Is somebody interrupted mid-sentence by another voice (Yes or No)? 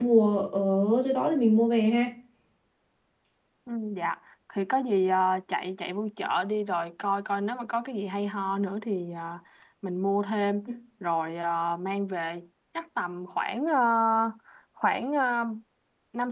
No